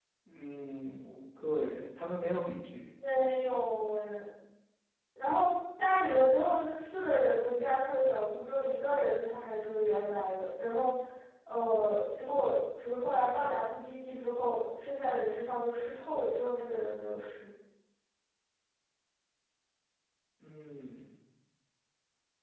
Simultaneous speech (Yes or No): No